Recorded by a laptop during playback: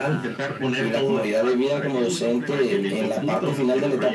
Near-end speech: present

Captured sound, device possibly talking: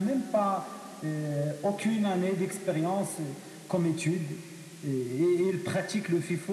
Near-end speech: none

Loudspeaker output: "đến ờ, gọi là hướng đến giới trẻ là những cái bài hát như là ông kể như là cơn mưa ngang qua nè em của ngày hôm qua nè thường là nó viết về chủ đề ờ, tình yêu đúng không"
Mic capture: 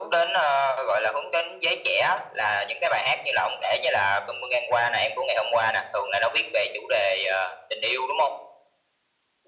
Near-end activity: none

